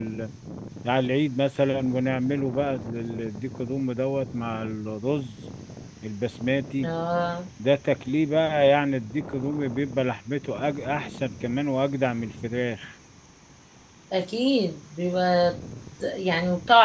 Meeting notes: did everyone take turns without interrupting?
Yes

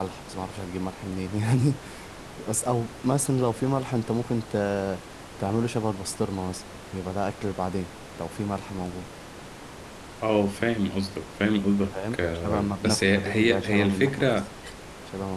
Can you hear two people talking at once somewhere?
Yes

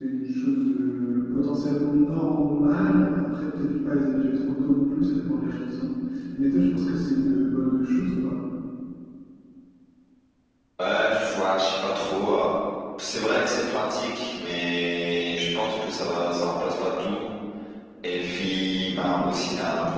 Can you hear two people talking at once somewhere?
No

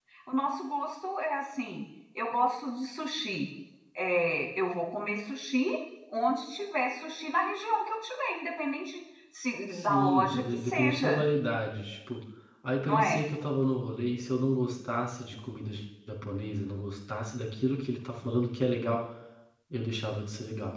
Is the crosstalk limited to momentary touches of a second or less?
No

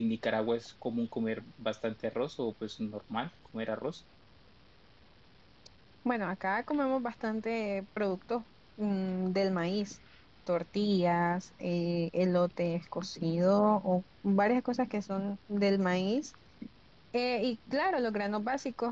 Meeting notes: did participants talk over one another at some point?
No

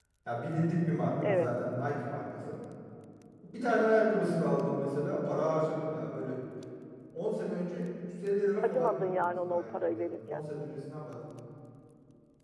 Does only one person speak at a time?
No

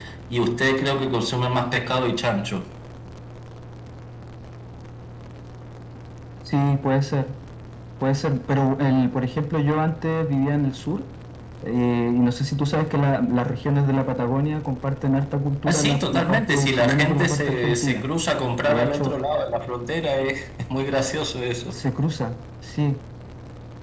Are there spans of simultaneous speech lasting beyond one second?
Yes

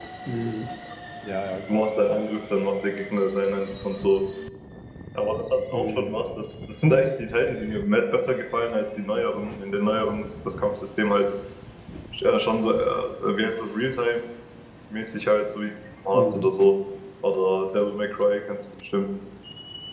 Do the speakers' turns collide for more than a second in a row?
No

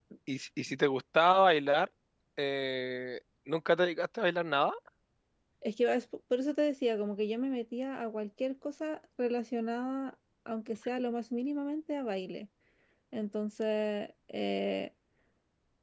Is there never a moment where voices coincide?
Yes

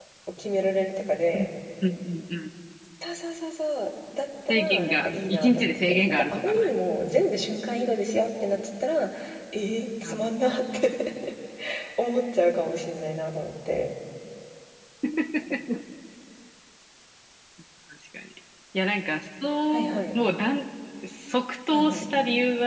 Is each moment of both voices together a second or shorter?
No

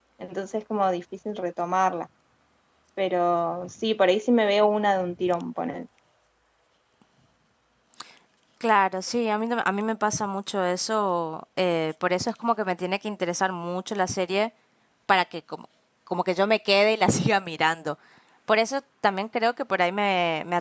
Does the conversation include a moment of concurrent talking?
No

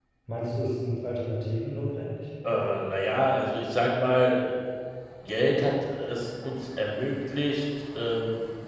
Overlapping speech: No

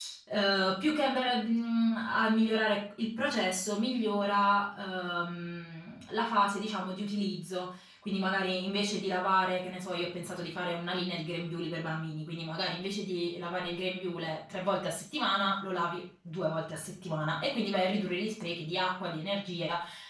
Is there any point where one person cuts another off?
No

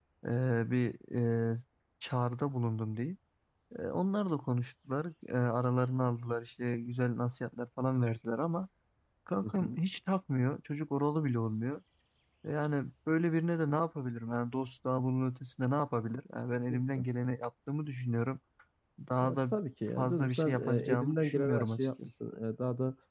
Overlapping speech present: Yes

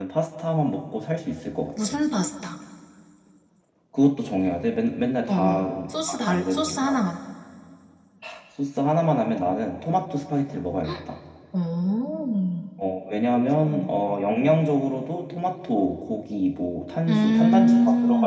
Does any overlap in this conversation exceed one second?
Yes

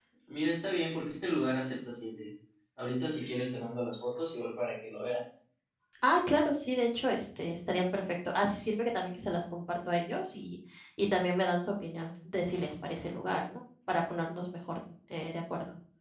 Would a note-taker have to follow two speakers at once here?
No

